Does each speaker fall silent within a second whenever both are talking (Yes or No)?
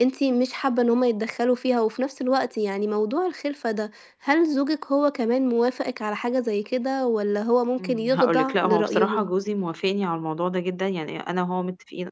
No